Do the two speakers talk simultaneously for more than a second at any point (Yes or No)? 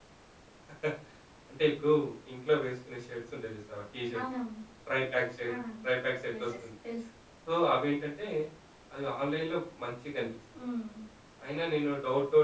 No